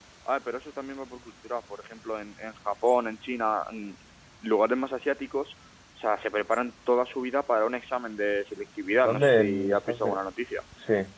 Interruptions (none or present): present